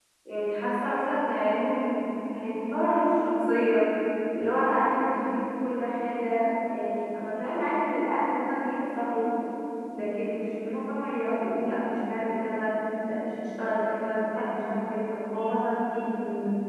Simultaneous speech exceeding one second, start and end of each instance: none

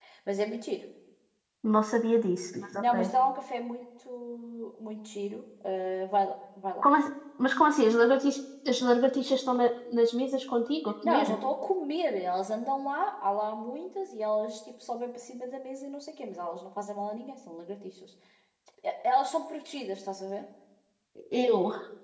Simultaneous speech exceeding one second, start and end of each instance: none

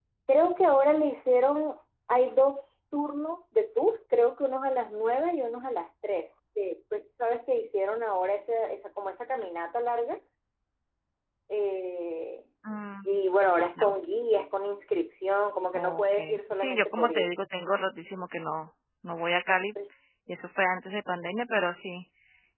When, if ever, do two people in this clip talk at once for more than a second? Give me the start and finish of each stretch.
15.7-17.3

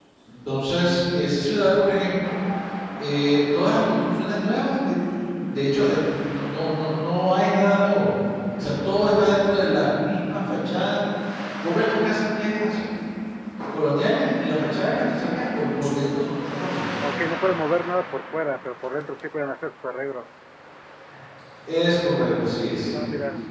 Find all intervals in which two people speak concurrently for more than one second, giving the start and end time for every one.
none

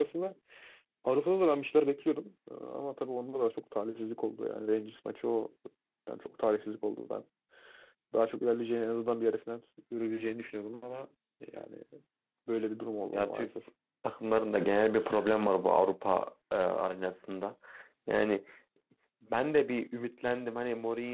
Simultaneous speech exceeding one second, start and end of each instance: none

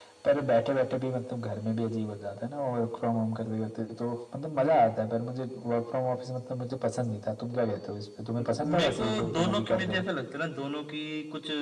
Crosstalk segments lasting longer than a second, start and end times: 8.4-10.0

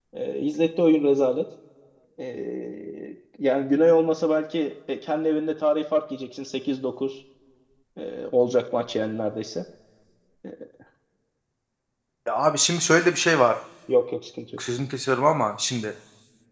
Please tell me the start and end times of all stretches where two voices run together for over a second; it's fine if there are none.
none

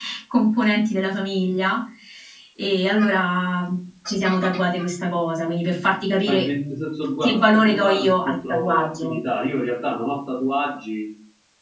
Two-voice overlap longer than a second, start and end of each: 7.2-9.2

